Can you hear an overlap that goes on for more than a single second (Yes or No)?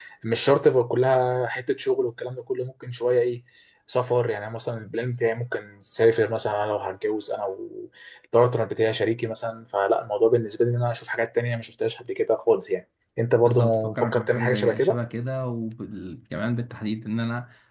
Yes